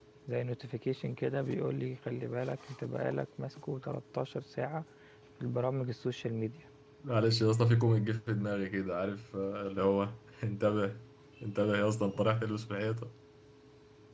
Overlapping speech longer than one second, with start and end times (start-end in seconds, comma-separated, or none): none